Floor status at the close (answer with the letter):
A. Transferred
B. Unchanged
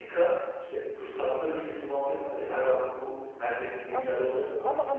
A